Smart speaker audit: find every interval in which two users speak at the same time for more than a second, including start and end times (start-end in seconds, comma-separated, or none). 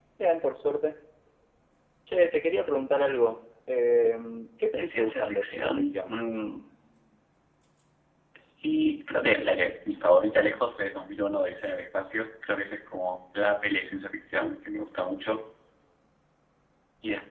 4.8-6.1